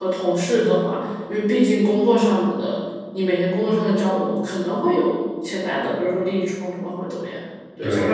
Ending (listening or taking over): taking over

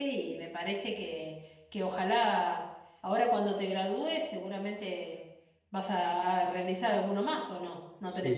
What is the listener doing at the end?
taking over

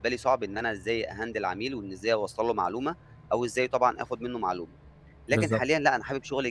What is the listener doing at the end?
listening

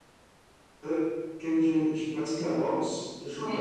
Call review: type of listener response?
listening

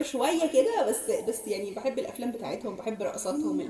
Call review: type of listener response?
taking over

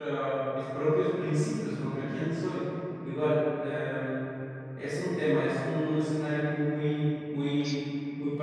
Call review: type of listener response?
listening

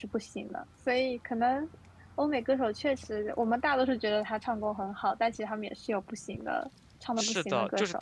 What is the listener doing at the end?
taking over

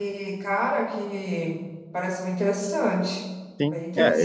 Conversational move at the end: taking over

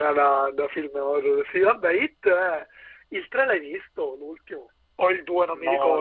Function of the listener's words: taking over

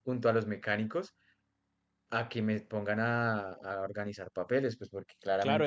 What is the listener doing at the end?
taking over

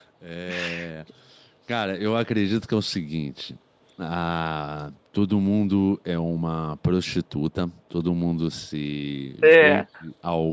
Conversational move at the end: listening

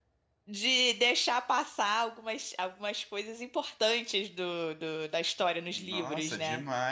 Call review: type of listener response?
taking over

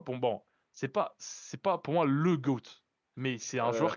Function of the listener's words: listening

